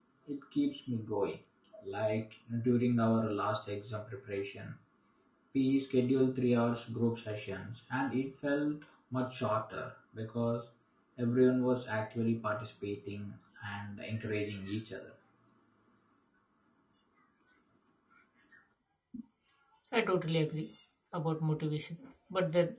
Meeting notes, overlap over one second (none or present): none